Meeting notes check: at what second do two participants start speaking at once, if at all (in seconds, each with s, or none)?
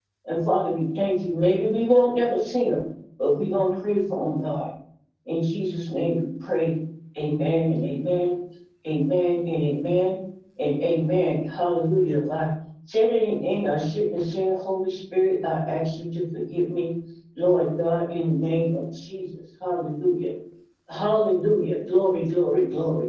none